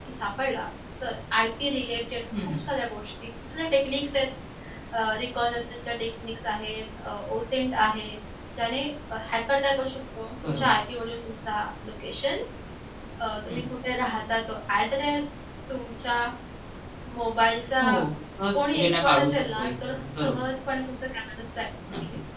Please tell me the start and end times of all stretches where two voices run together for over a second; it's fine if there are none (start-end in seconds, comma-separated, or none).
18.5-20.4